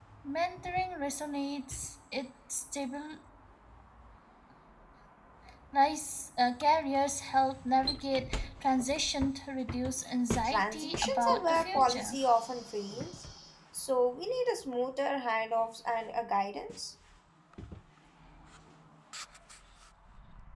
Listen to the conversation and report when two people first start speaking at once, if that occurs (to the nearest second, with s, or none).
10 s